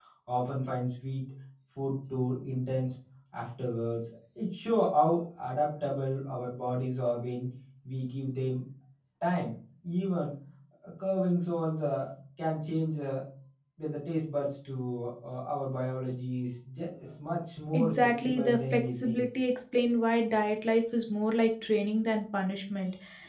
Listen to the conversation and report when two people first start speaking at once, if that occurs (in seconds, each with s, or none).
17.7 s